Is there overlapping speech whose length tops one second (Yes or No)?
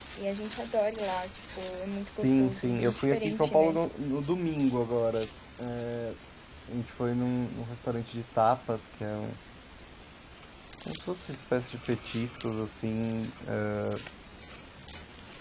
Yes